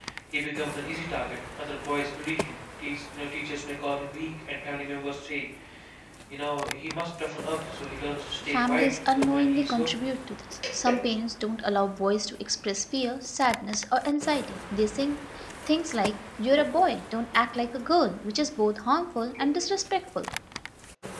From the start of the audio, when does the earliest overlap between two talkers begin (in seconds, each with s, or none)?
8.4 s